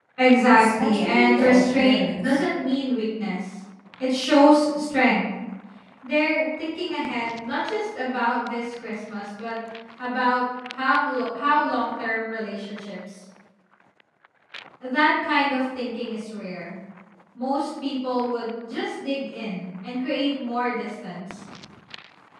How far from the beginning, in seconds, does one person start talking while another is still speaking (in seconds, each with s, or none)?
0.5 s